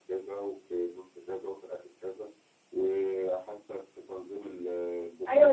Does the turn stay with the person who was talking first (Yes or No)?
No